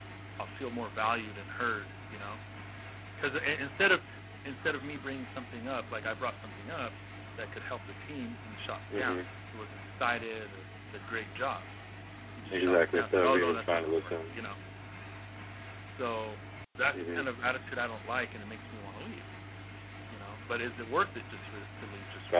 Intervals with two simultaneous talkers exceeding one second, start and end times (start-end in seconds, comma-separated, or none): 12.5-14.1